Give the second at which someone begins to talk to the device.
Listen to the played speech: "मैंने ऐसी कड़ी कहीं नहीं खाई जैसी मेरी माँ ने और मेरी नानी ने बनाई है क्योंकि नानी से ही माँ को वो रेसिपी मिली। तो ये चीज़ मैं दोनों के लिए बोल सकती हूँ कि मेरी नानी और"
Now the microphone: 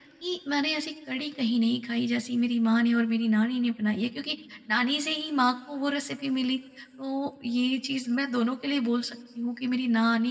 none

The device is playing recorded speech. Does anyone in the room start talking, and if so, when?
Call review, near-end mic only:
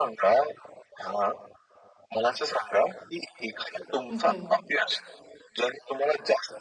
4.1 s

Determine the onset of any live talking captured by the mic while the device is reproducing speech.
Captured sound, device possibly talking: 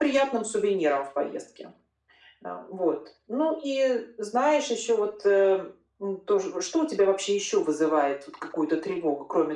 none

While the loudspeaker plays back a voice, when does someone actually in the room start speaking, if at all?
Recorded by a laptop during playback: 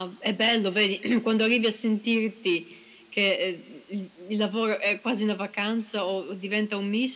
none

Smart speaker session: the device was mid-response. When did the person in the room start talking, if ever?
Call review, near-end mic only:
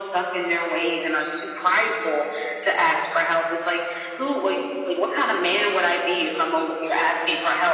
none

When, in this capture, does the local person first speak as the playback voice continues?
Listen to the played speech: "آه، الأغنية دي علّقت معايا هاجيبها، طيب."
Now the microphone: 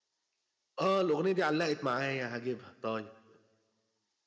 none

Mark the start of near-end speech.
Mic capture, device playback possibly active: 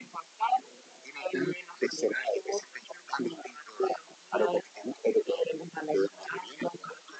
none

